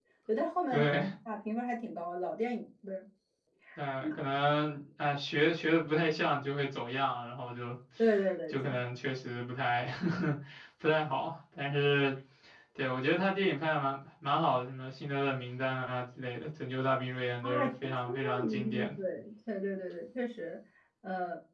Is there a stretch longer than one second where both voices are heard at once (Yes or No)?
Yes